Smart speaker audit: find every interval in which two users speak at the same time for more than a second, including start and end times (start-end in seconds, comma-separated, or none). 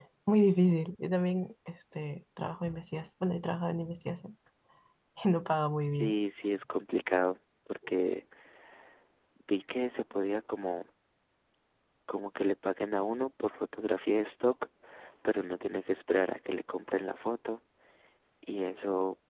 none